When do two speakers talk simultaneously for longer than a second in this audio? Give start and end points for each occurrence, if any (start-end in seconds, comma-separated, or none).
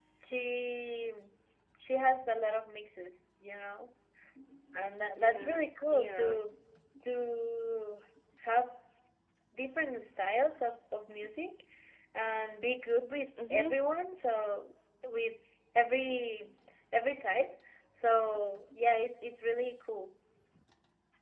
5.2-6.4